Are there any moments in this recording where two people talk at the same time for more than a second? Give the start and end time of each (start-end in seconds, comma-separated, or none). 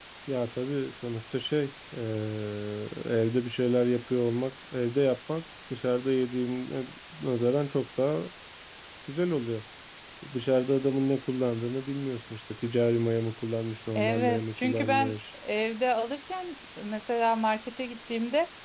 13.9-15.2